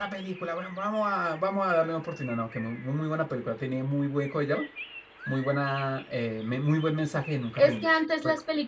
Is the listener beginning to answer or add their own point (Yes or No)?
Yes